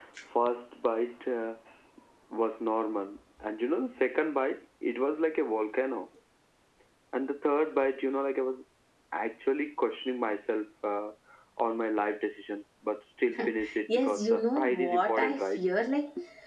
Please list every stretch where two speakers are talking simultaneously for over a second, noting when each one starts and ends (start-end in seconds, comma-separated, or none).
13.9-15.6